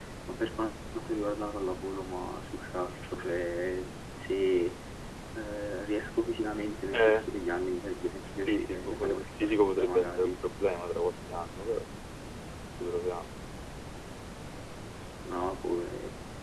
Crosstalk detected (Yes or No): Yes